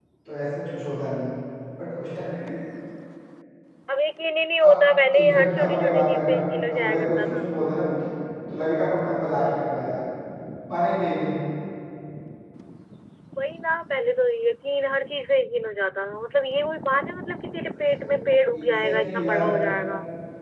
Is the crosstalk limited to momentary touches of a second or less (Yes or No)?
No